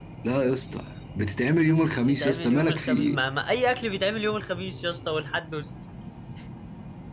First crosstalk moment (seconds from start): 2 s

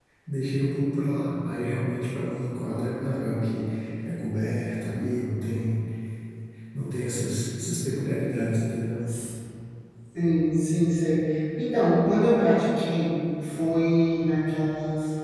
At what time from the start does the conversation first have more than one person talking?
none

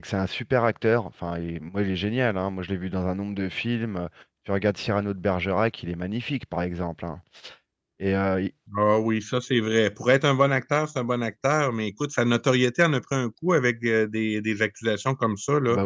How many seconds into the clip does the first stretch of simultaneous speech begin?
none

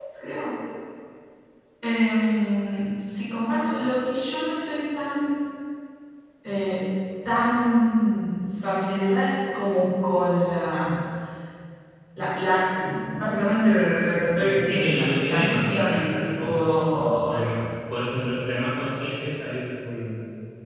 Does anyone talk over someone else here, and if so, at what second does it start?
14 s

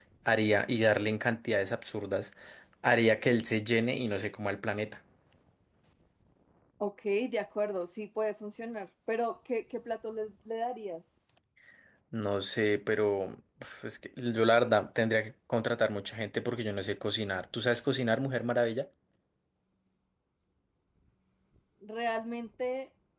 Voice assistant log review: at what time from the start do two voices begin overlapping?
none

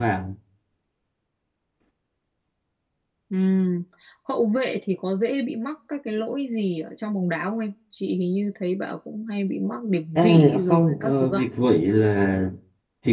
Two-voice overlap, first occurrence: 10 s

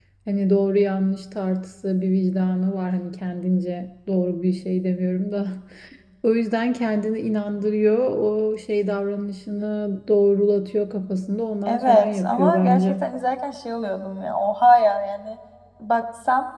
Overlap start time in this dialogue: 12 s

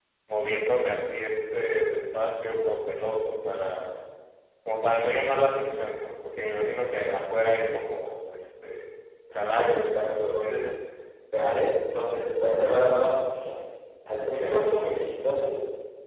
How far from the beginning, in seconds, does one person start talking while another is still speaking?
9 s

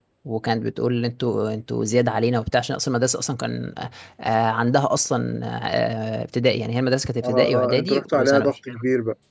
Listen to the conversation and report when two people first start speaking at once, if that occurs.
7 s

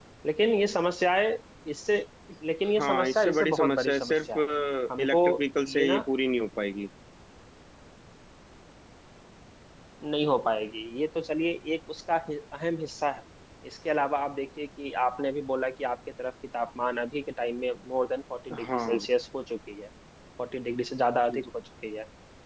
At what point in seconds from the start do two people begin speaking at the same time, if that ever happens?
3 s

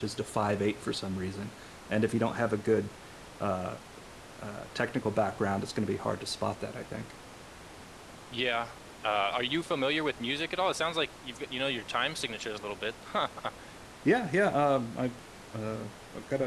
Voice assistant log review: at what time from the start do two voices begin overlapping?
none

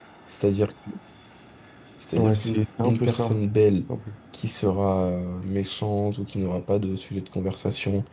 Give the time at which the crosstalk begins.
2 s

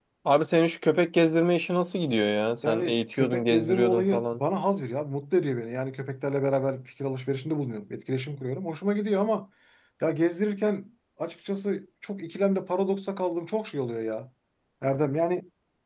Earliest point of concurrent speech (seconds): 3 s

